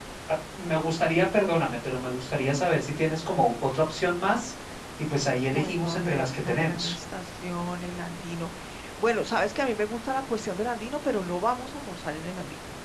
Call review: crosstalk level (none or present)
present